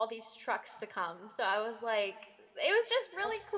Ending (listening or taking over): listening